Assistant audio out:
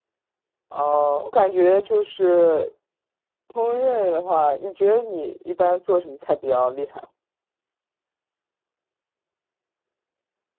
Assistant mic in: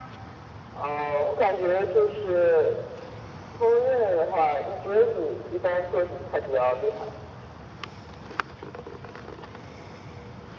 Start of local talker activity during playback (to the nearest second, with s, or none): none